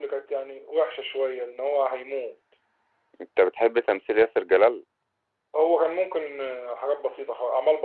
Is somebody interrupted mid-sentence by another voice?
No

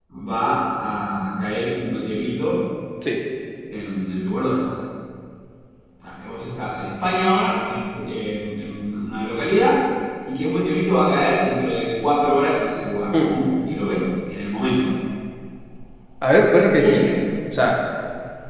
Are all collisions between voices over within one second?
Yes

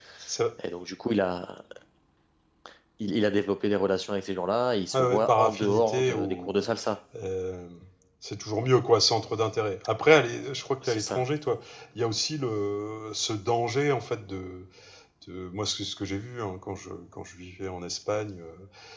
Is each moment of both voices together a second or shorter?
No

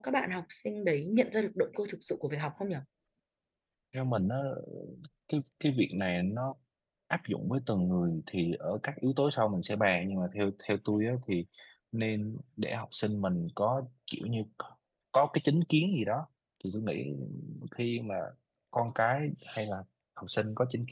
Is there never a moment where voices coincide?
Yes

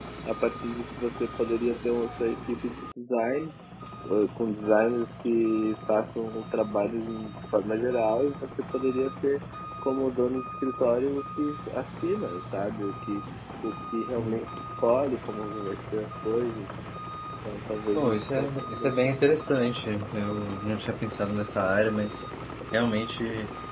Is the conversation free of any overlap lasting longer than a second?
No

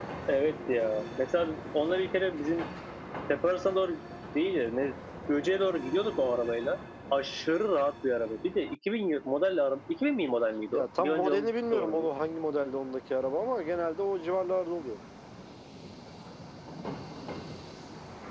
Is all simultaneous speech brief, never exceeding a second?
No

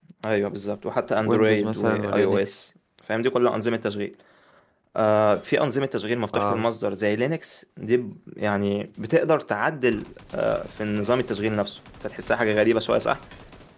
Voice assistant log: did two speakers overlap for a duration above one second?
Yes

